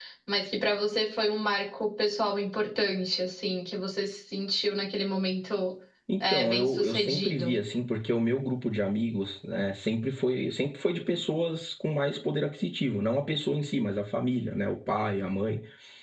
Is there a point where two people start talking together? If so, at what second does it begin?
6.3 s

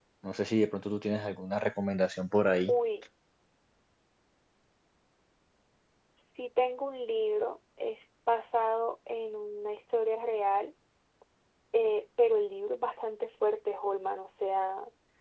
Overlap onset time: none

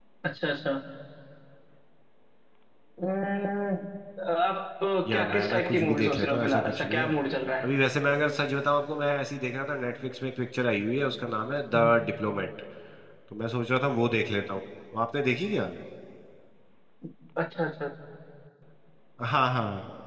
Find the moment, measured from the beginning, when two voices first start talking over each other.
5.1 s

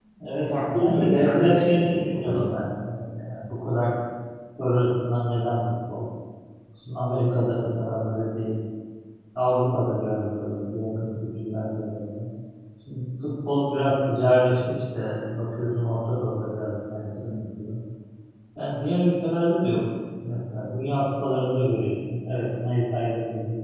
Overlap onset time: 0.5 s

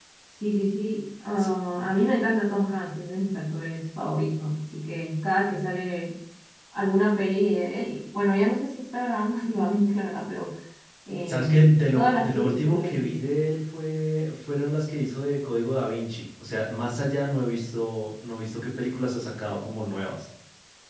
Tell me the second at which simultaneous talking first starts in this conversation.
11.3 s

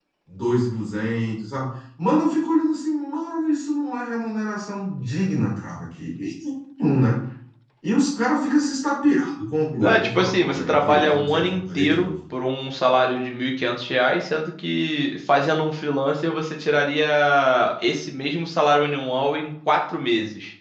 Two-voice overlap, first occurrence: 9.8 s

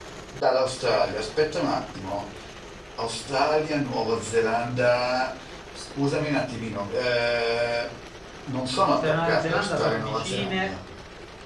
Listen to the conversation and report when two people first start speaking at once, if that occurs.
8.9 s

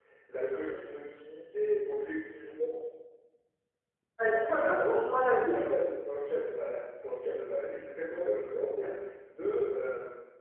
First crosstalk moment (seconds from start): 4.5 s

